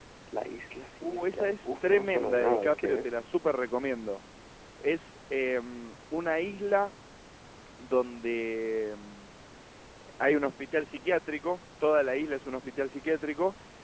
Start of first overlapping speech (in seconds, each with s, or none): 1.0 s